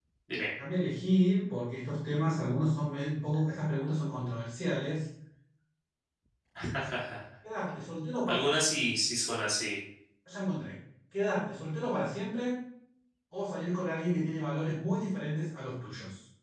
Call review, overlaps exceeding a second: none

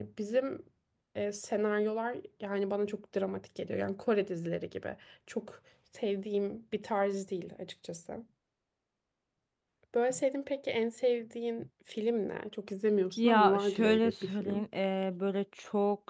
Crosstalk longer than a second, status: present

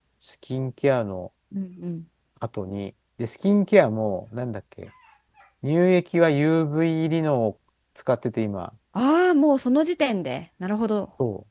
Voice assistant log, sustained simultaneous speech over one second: none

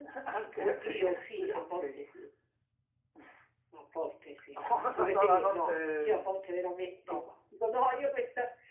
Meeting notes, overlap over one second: present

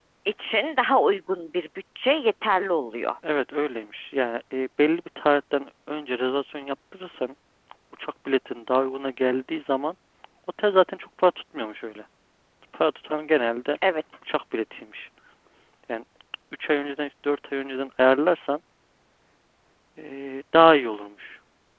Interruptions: none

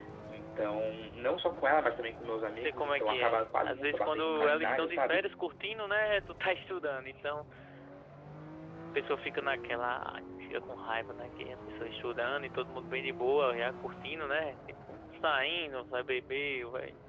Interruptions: present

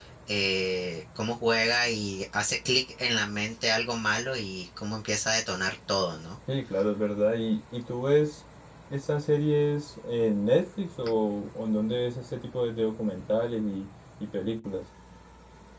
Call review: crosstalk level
none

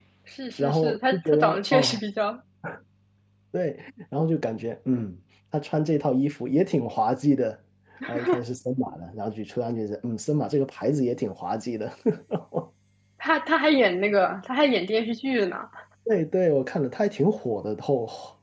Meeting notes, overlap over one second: present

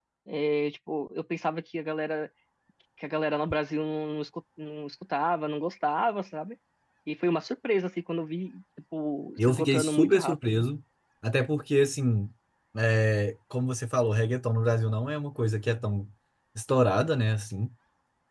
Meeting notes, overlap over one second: present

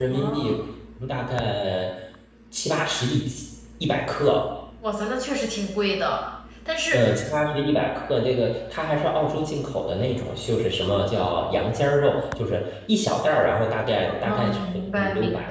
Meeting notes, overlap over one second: present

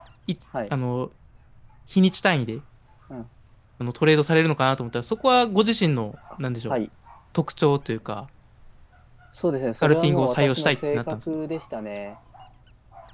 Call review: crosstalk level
present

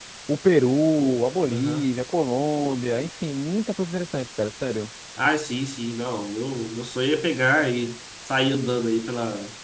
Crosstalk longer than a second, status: none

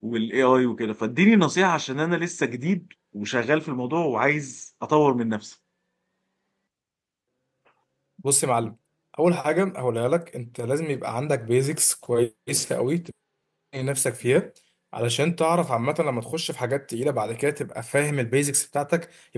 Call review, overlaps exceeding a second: none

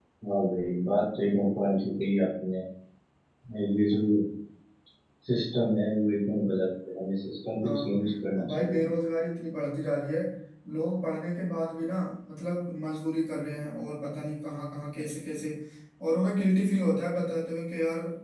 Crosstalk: present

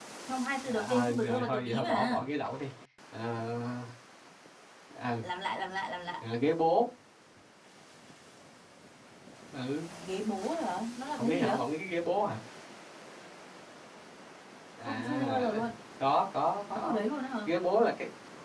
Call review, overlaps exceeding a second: present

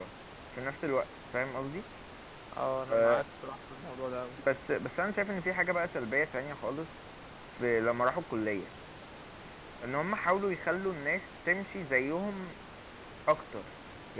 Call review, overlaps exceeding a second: none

